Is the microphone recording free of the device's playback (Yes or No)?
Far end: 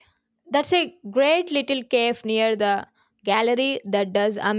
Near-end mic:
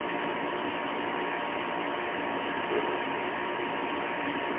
Yes